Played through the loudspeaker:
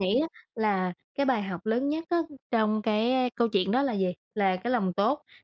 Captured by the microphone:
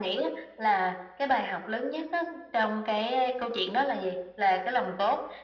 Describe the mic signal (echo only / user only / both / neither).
echo only